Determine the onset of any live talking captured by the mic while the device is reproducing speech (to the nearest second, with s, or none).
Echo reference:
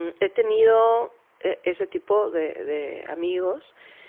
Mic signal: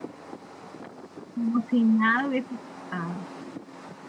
1 s